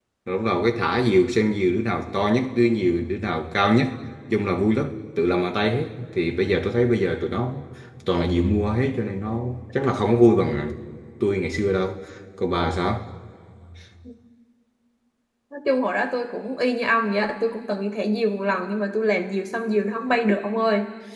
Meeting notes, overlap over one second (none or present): none